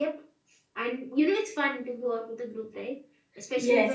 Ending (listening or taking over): taking over